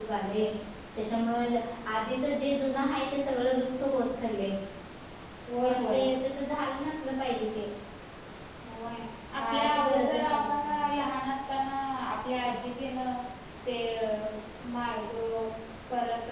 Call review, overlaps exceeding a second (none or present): present